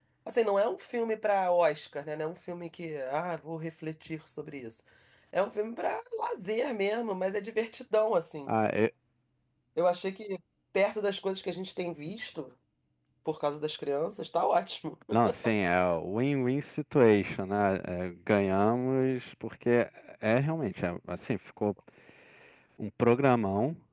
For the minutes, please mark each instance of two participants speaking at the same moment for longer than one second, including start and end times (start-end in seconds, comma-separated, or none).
none